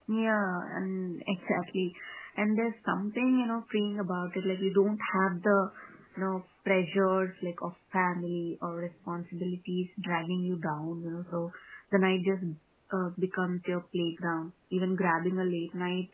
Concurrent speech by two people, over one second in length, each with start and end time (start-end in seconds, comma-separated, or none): none